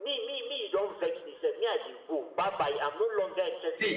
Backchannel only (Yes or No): Yes